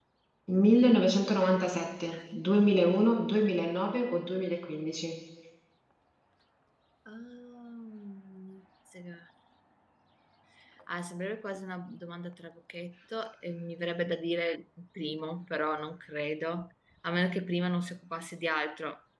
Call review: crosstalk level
none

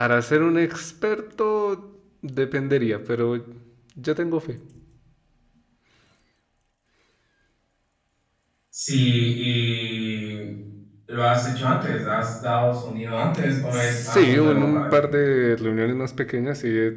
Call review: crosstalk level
present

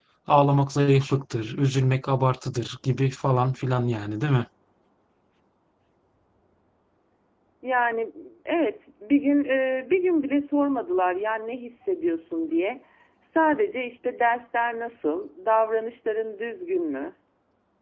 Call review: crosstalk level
none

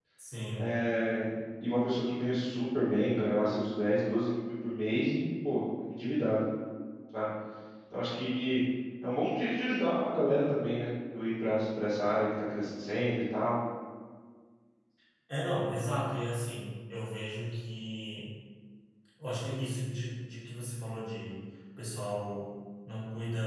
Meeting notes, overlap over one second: none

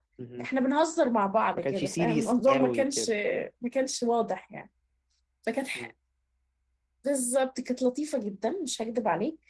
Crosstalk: present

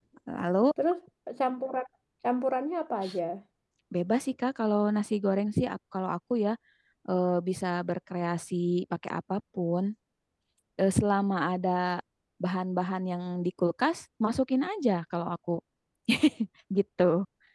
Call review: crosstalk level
none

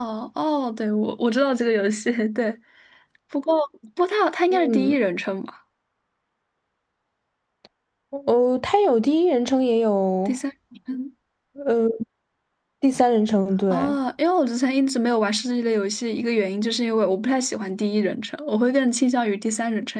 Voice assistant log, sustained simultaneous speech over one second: none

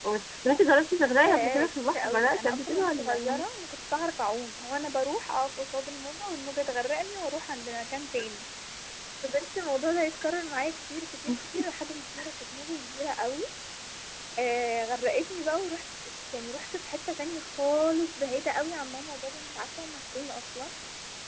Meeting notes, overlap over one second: present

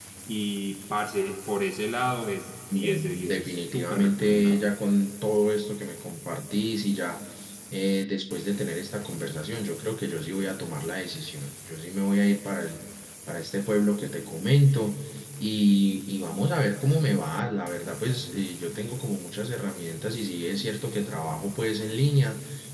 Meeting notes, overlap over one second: present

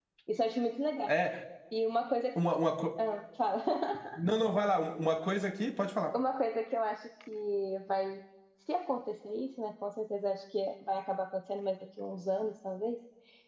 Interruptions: none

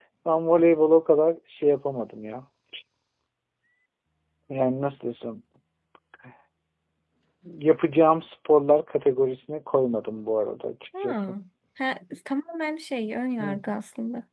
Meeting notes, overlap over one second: none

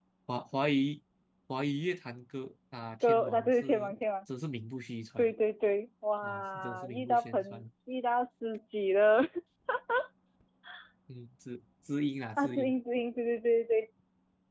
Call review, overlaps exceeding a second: present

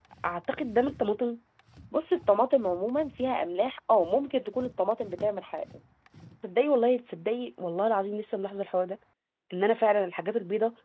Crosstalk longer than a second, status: none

